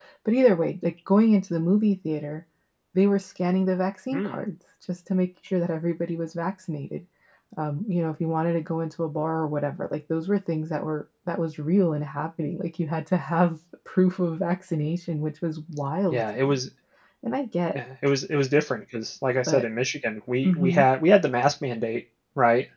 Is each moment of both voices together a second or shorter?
Yes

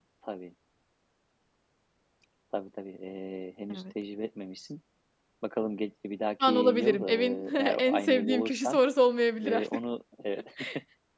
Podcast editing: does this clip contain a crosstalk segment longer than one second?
Yes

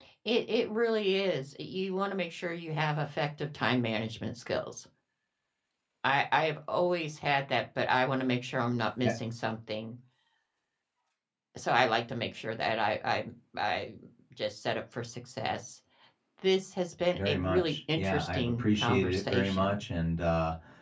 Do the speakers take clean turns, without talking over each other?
No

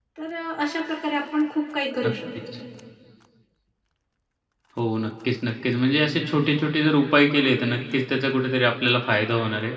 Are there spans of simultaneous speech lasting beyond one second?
No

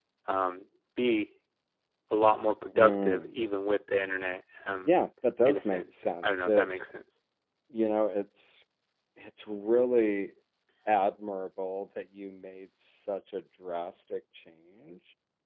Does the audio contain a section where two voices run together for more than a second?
Yes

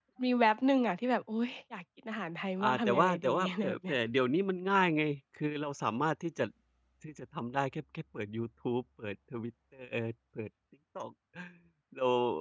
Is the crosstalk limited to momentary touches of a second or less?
No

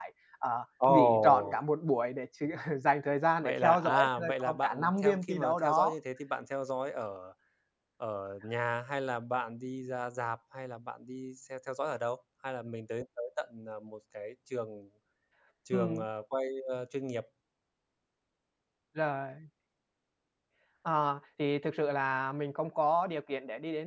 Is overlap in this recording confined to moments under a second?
No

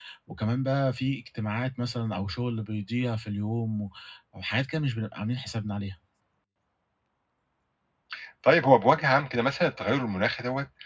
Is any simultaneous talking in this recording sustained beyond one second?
No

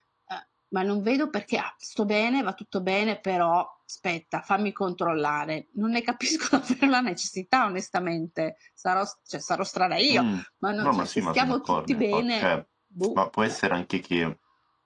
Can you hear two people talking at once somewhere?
Yes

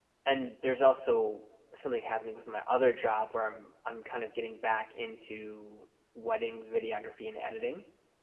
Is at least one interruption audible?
No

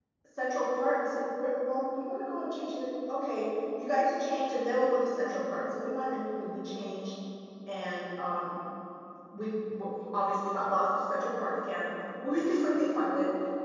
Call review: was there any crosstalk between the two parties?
No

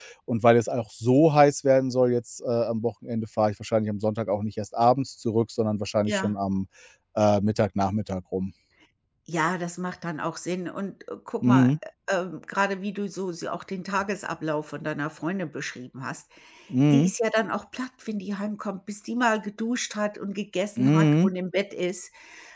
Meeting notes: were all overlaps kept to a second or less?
Yes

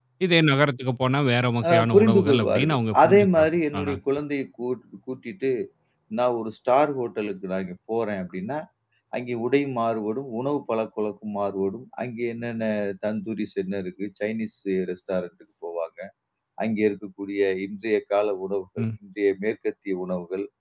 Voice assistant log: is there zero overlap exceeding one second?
No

